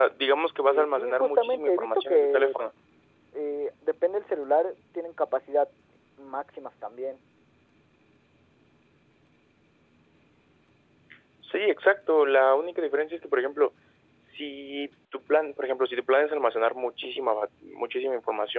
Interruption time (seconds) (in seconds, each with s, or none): 0.7 s